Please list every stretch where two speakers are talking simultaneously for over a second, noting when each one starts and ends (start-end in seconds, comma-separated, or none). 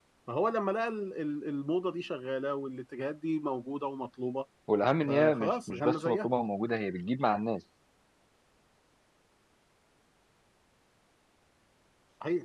5.1-6.3